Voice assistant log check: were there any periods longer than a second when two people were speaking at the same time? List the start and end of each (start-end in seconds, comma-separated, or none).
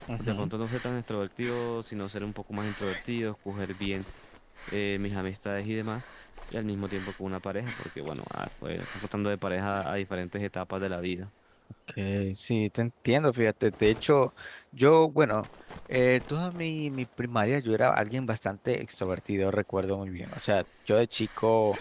none